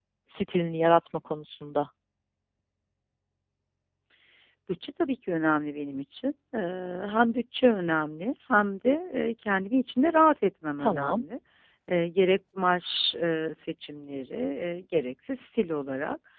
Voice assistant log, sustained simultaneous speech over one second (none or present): none